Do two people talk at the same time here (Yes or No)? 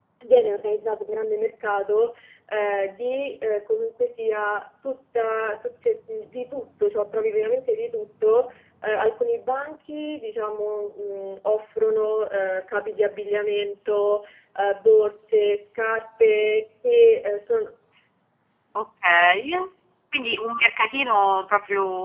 No